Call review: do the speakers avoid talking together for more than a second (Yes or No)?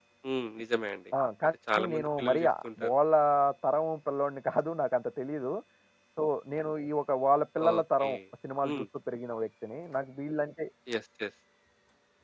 No